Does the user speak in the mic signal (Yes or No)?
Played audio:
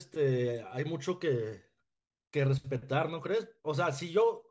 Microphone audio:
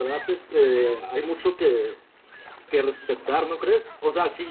No